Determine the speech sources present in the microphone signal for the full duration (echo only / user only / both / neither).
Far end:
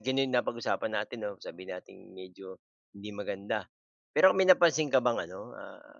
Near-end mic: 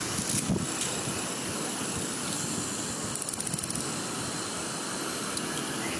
neither